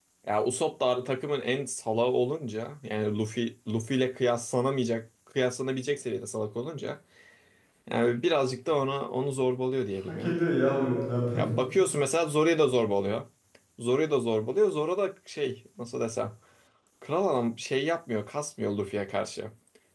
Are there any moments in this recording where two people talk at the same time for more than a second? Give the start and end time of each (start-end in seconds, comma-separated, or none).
none